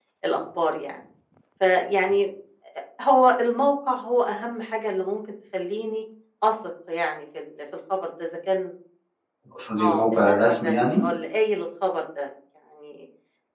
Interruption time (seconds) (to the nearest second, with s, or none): 10 s